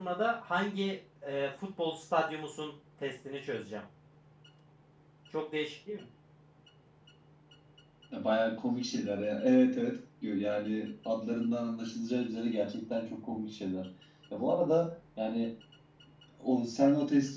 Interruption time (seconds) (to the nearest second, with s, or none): none